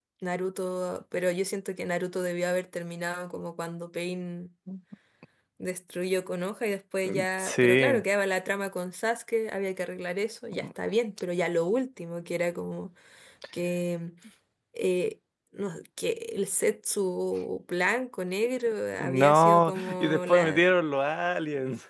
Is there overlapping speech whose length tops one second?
Yes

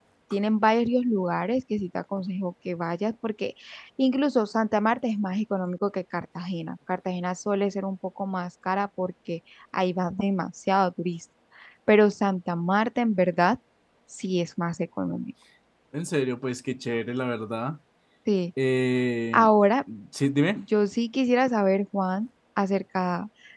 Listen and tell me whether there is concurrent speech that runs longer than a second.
No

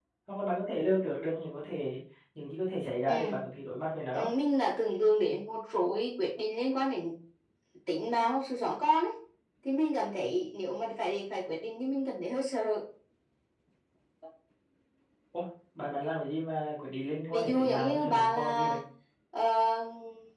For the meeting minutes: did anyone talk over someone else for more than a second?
Yes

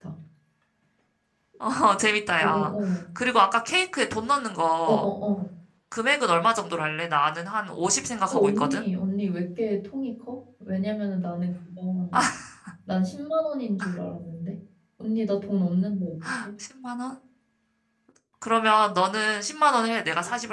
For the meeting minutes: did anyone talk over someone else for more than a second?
No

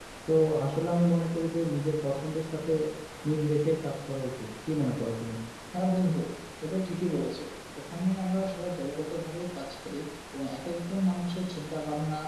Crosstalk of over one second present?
No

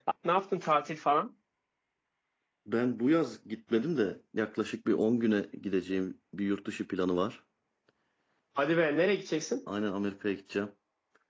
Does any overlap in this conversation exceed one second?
No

